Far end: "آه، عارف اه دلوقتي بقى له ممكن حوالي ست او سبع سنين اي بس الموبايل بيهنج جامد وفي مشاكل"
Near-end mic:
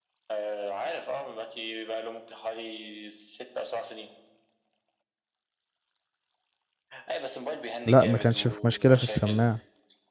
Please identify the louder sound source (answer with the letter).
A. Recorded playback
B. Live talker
B